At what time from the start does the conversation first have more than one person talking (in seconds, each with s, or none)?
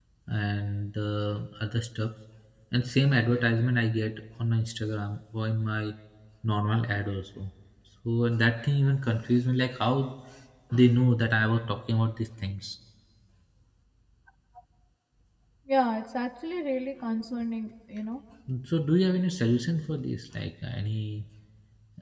none